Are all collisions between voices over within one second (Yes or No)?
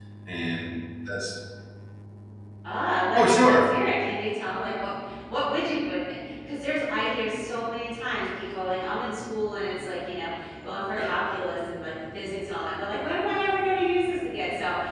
Yes